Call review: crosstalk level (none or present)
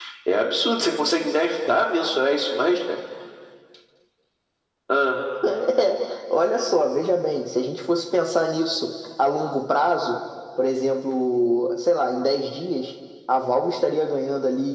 none